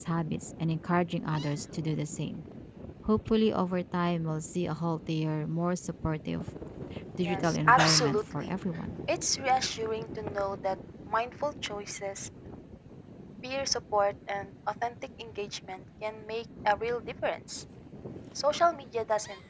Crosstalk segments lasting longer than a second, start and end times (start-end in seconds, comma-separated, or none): 7.2-8.5